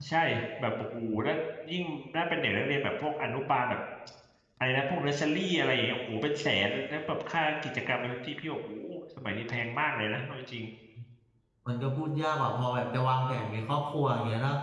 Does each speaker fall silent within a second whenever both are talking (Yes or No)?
Yes